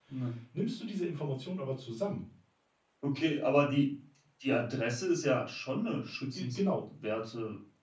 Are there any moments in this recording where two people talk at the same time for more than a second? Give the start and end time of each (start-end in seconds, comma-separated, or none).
none